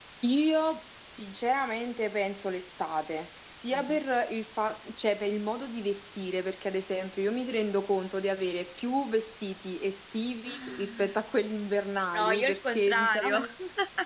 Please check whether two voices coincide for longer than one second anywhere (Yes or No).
Yes